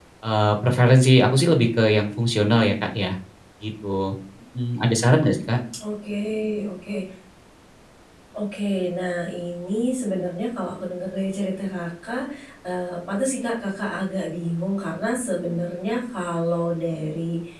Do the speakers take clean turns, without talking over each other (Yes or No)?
Yes